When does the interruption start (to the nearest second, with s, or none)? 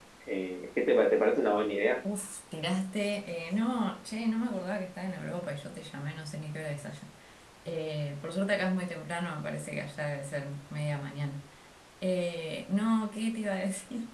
none